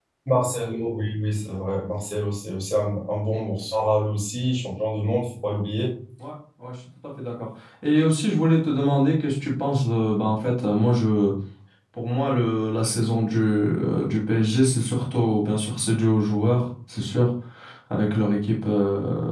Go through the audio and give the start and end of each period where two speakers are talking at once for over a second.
none

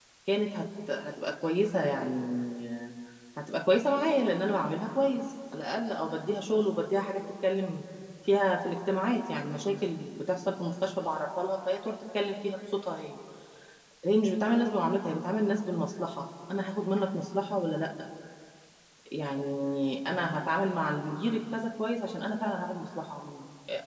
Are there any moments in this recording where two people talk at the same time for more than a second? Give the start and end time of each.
none

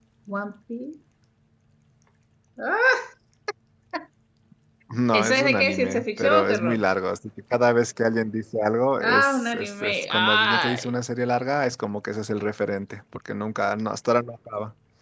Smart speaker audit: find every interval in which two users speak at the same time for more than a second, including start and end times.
5.1-6.8, 9.0-10.9

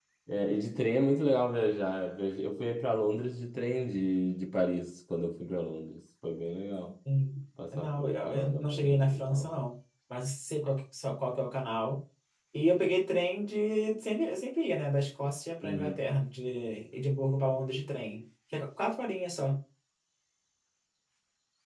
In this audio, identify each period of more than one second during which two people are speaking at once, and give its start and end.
7.7-9.5

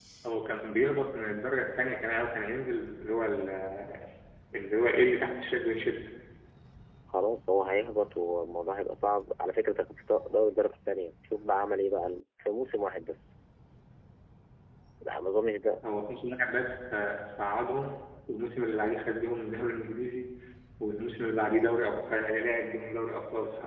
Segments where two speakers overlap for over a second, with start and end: none

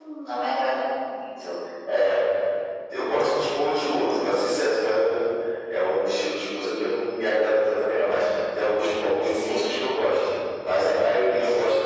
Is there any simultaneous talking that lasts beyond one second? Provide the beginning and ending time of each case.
none

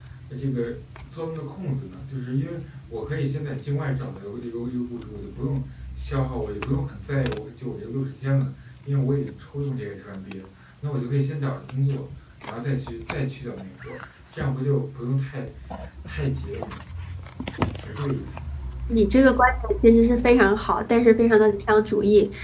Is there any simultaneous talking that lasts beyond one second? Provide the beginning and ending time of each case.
none

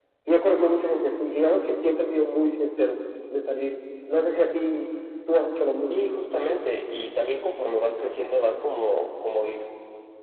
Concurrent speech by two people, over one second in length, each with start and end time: none

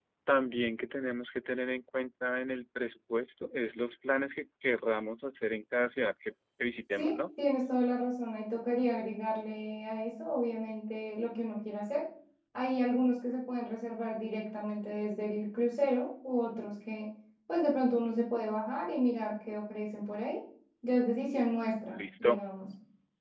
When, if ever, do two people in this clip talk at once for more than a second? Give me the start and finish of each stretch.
none

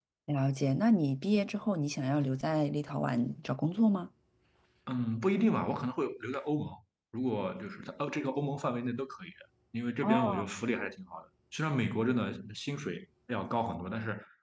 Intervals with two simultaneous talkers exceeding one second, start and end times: none

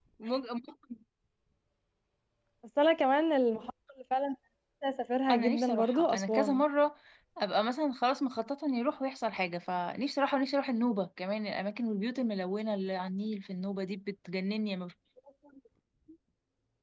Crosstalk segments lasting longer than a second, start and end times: 5.3-6.6

